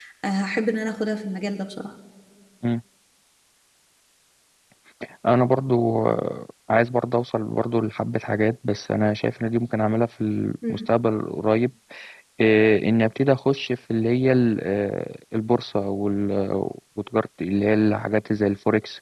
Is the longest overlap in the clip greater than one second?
No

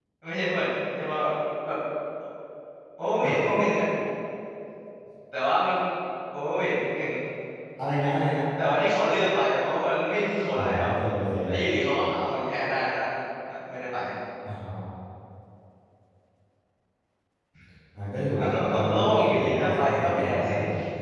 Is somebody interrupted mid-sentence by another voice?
Yes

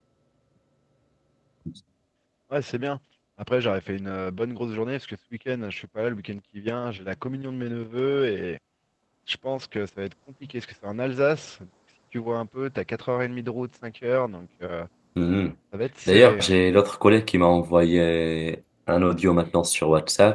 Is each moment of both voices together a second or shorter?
Yes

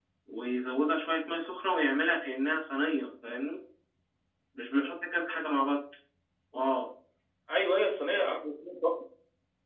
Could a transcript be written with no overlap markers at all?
Yes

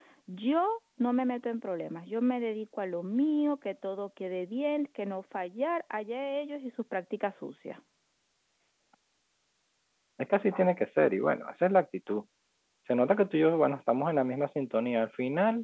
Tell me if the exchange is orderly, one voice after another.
Yes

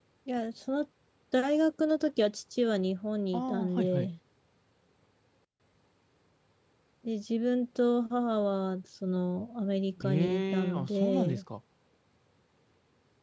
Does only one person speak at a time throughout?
No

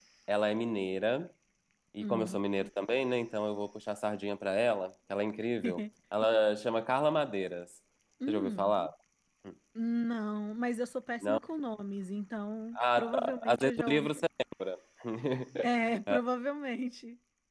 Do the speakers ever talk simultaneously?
Yes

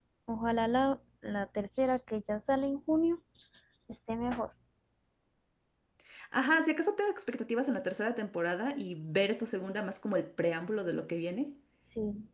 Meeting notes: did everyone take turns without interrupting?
Yes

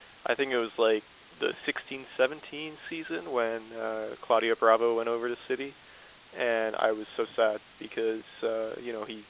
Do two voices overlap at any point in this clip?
No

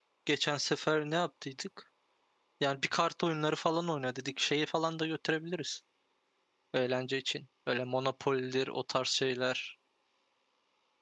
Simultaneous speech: No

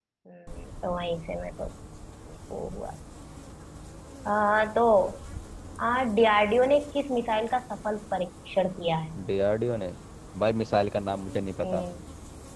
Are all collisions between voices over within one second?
Yes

